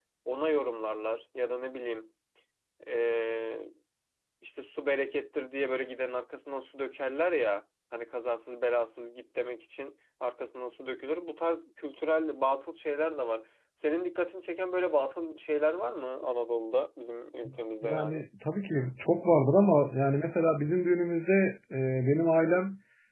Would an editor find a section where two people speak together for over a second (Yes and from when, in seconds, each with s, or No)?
No